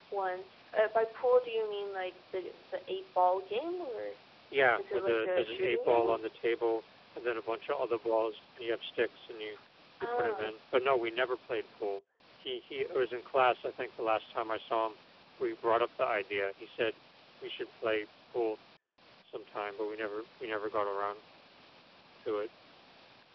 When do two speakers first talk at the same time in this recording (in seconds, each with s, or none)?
4.8 s